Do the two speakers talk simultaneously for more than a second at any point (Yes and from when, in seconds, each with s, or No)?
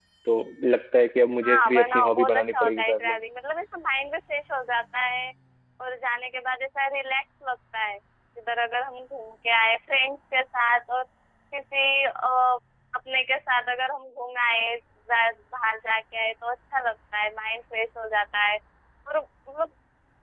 Yes, from 1.4 s